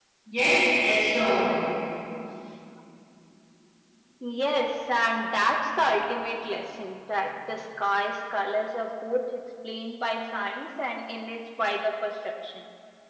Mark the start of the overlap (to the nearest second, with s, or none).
none